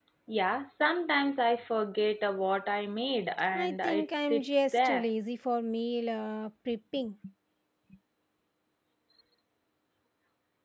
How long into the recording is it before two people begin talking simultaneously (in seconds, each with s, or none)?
3.5 s